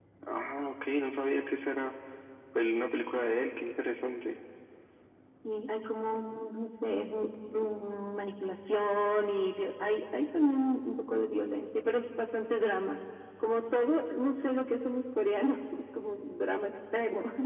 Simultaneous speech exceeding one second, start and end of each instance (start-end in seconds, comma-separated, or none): none